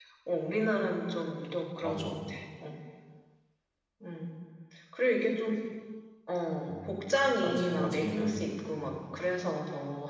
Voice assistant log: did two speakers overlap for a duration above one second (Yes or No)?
Yes